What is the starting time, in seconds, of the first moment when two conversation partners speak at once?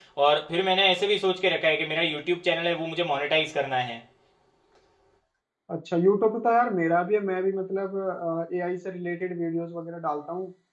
none

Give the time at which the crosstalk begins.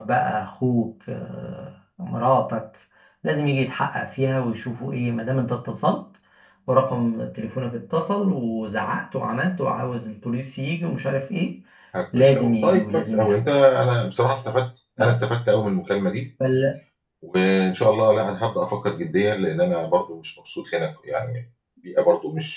12 s

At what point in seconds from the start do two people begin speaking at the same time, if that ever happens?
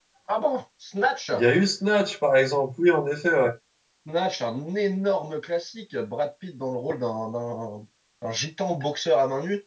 none

